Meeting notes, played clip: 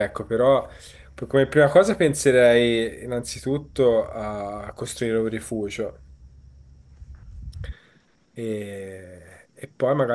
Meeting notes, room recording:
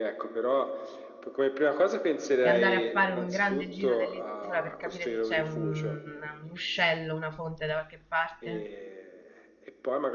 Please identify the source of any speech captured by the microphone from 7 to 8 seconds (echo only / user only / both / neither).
user only